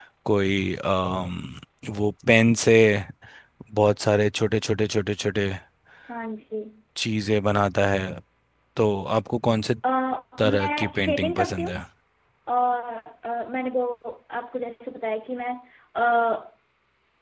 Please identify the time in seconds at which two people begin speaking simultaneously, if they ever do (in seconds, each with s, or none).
10.4 s